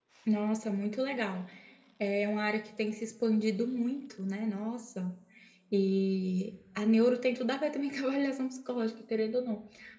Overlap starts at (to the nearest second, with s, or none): none